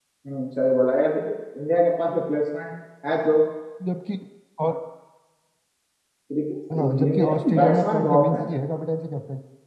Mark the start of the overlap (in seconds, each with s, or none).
6.8 s